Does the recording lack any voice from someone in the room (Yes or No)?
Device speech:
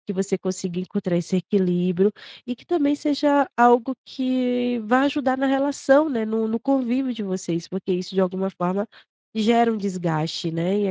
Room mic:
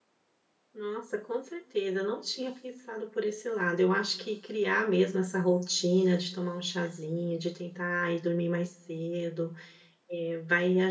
No